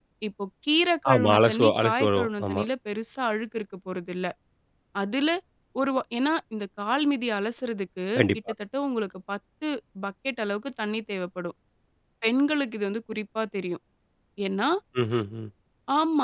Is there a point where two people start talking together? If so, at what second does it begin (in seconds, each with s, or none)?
1.1 s